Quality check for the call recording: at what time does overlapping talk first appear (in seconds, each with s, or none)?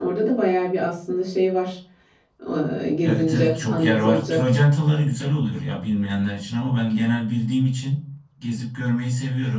3.0 s